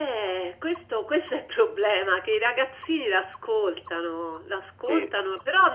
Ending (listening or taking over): listening